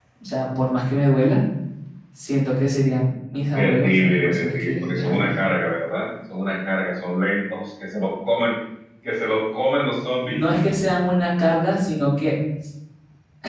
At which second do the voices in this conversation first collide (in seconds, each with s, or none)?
3.5 s